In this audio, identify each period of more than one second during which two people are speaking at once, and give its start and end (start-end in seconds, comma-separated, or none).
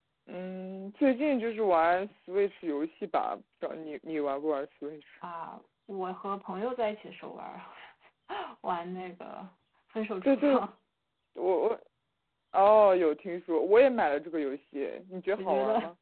none